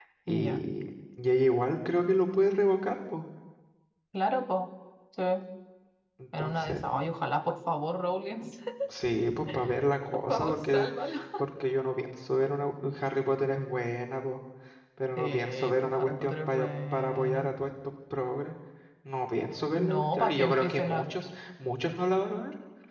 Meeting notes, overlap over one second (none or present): present